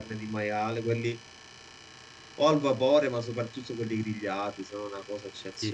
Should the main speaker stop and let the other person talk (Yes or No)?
Yes